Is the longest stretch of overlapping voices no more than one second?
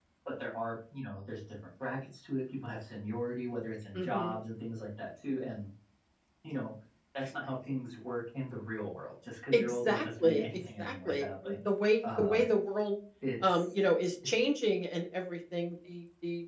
No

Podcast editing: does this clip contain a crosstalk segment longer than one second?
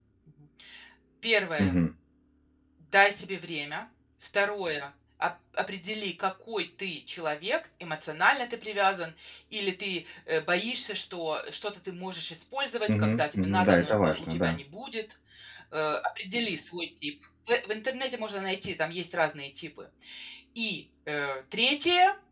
Yes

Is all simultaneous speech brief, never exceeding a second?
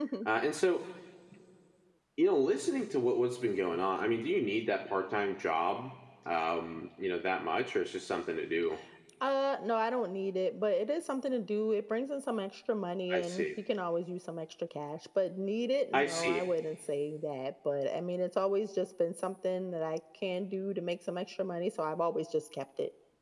Yes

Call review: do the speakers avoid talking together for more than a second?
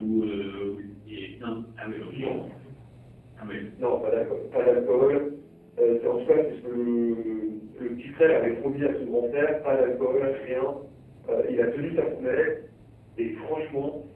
Yes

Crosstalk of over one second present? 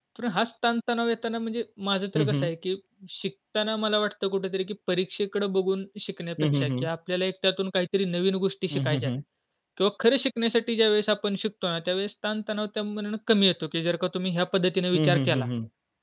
No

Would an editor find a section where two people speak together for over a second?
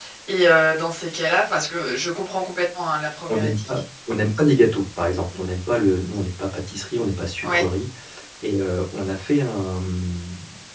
No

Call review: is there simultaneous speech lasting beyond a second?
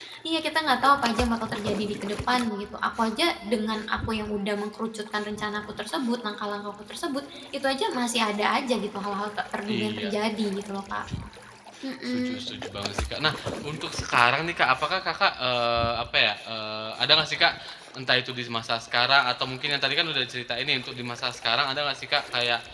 No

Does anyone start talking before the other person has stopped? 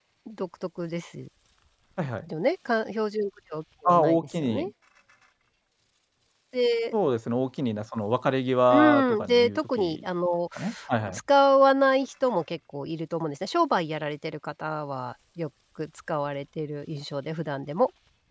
Yes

